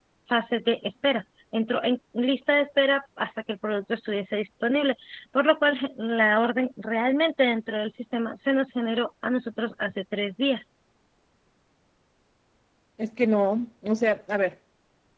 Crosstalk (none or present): none